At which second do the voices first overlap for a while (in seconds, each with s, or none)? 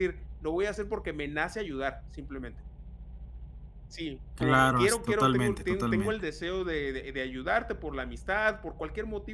4.4 s